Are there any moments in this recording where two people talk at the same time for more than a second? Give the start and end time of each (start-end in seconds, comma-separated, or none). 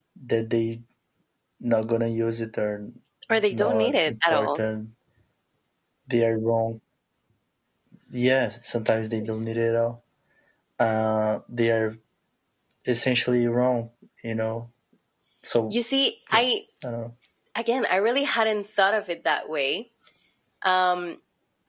3.3-4.6